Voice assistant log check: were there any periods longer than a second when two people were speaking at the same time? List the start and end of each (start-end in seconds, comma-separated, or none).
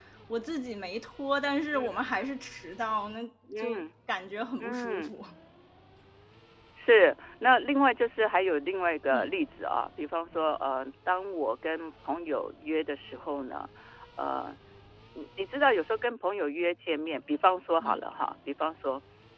none